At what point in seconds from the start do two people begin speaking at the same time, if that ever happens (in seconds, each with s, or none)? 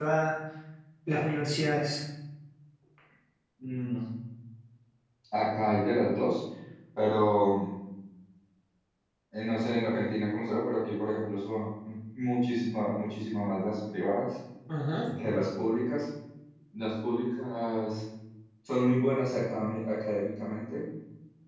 none